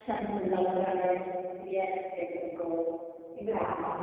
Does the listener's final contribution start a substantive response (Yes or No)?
No